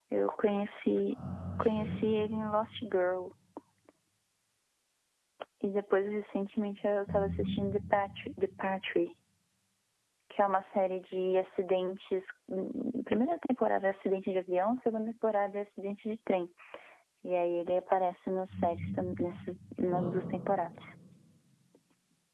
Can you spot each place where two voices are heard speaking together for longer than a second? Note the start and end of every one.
none

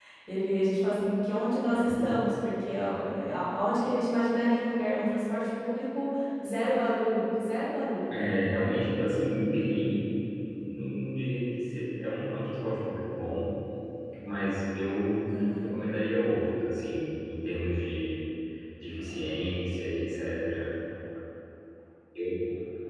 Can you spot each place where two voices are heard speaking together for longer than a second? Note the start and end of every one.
none

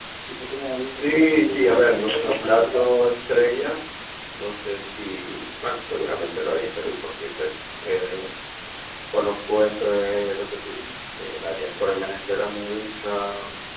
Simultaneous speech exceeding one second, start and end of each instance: 0.9-3.1

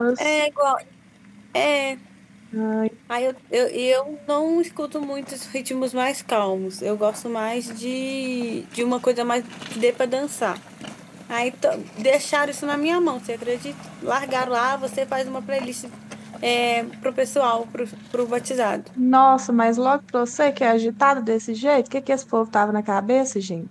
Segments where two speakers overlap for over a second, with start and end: none

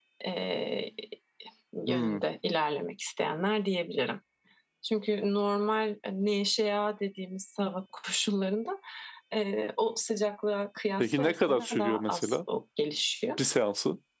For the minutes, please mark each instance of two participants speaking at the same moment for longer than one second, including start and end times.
11.0-12.4

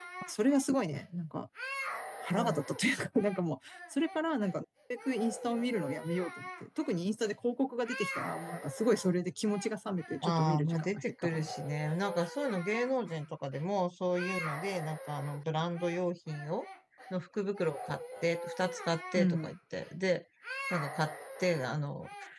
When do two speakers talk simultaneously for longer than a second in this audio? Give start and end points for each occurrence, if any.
10.2-11.5

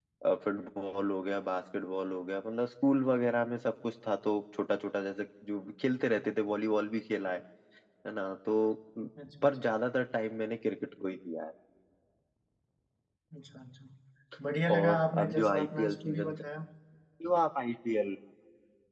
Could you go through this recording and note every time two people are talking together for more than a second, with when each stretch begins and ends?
14.7-16.4

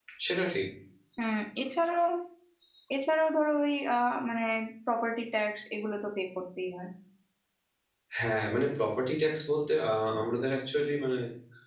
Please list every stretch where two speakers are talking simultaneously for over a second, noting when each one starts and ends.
none

